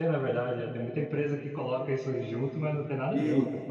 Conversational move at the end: taking over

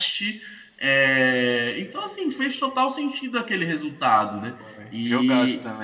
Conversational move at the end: taking over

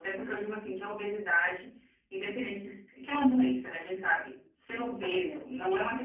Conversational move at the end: listening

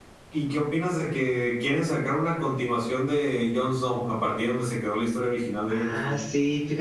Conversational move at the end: taking over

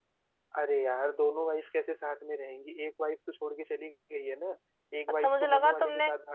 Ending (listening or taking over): taking over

